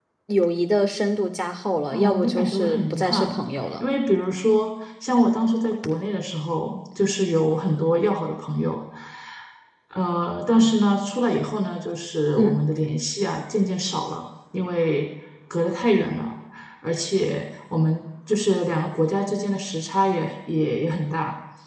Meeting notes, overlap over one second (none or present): present